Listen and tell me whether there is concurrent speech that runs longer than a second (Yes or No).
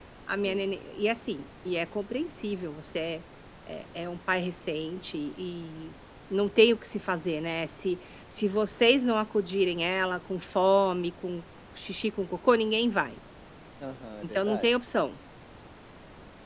No